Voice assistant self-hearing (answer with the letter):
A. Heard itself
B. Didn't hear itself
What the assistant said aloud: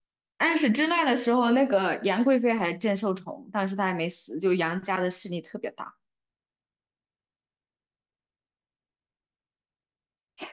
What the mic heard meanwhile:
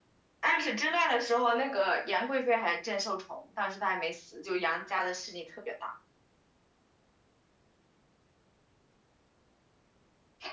A